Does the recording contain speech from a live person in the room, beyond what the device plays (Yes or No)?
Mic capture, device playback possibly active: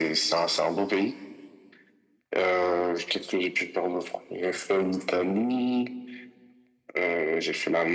No